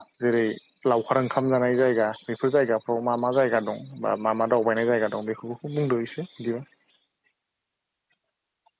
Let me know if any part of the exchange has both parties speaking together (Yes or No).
No